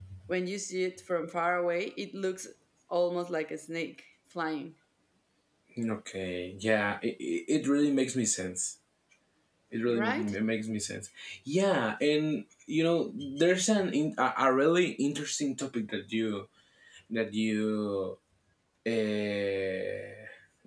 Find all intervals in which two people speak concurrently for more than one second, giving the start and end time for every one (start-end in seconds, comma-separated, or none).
none